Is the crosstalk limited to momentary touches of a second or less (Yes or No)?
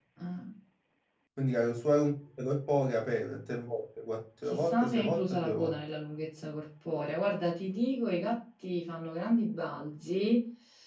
No